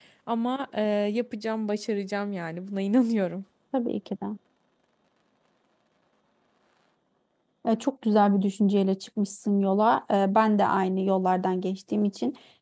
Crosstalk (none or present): none